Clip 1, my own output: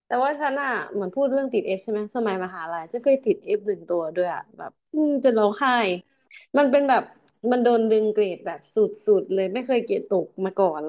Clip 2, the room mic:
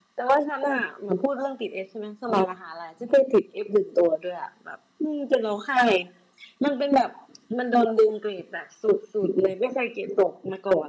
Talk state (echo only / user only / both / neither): echo only